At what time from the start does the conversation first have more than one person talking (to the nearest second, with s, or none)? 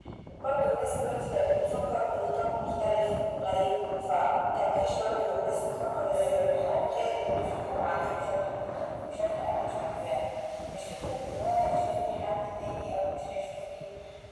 6 s